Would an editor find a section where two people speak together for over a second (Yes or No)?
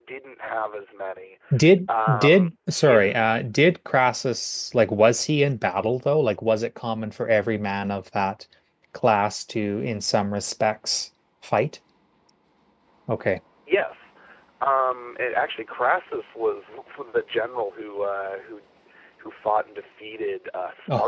Yes